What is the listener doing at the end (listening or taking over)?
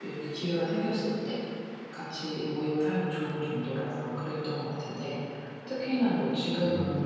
listening